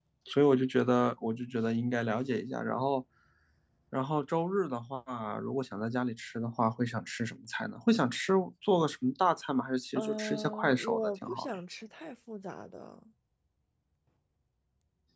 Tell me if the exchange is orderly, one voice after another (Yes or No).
No